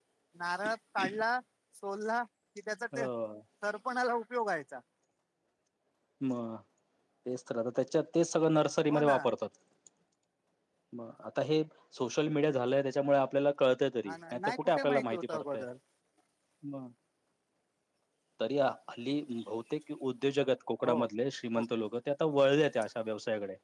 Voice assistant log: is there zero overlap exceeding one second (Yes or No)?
No